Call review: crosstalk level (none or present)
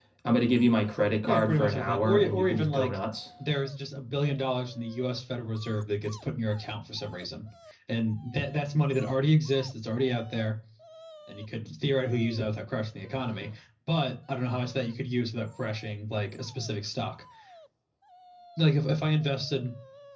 present